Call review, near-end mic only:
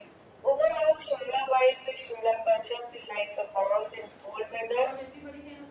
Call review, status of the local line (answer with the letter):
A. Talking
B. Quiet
A